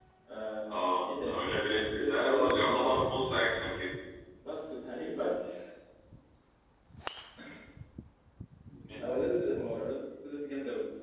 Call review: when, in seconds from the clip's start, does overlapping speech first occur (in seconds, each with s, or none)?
0.7 s